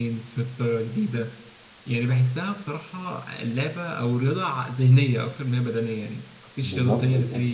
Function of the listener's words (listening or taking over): listening